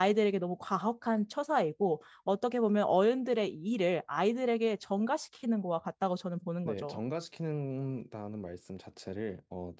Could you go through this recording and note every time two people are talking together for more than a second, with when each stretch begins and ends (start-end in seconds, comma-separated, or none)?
none